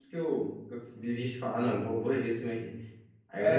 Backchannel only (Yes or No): No